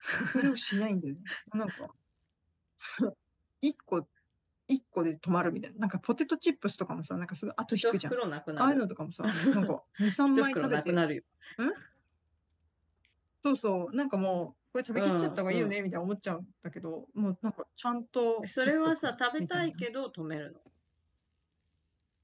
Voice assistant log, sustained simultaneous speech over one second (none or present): present